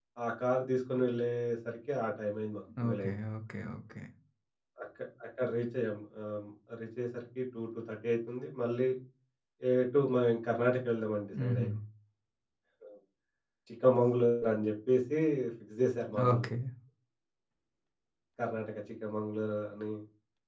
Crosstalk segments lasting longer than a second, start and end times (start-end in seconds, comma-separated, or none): none